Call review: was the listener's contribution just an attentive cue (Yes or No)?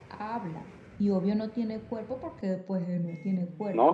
No